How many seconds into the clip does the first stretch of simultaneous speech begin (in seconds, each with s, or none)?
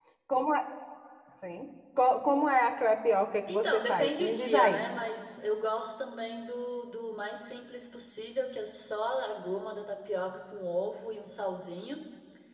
3.5 s